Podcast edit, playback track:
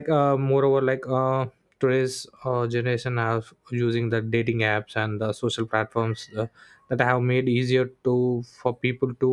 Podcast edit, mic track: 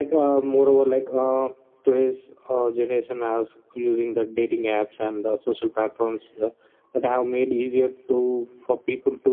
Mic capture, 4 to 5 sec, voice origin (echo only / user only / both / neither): echo only